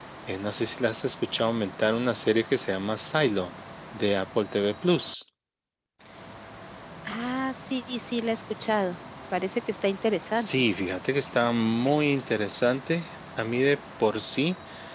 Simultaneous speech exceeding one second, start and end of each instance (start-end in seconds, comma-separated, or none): none